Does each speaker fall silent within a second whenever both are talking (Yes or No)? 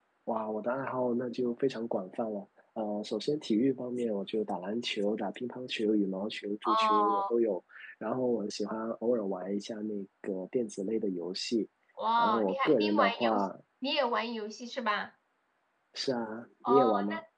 No